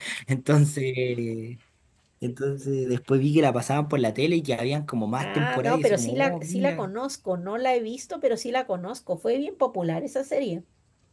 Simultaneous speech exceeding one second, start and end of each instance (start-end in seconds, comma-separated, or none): 5.2-6.9